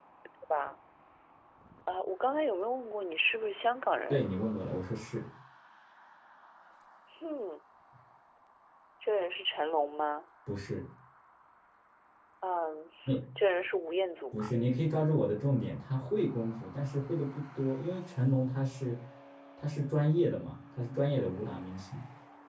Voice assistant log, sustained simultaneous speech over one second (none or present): none